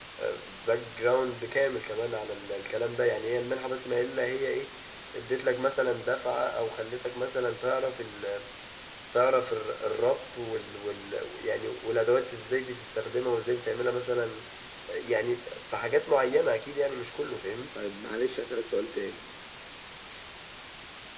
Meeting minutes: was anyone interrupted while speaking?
No

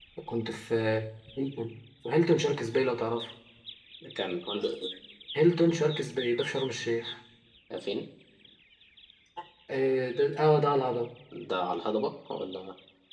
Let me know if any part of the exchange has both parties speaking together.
No

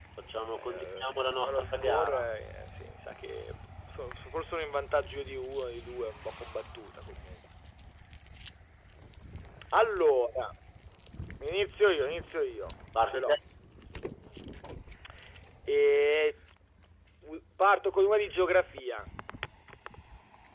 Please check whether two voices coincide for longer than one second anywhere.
Yes, from 0.6 s

